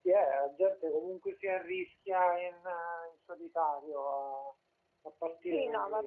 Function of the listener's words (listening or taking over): taking over